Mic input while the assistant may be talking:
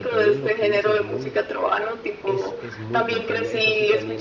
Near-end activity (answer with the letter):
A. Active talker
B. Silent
A